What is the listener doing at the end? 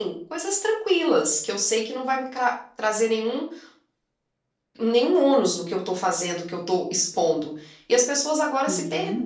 listening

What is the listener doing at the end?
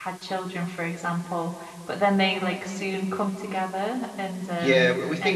taking over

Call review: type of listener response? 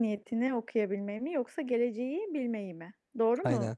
taking over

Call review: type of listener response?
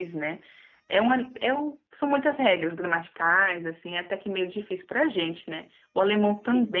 listening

